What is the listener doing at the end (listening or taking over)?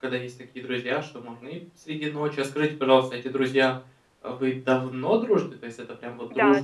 taking over